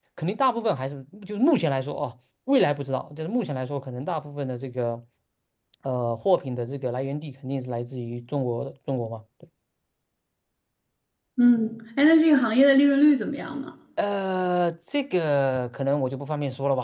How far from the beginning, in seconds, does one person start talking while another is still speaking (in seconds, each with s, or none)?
none